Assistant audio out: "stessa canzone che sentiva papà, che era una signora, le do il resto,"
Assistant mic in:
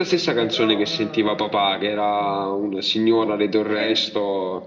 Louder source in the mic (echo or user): echo